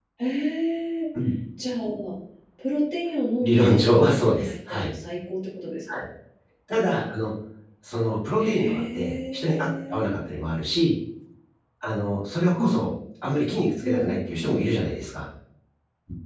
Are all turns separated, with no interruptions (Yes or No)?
No